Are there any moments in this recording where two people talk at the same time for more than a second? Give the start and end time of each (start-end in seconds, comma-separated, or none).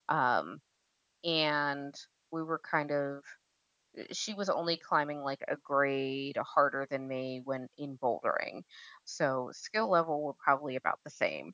none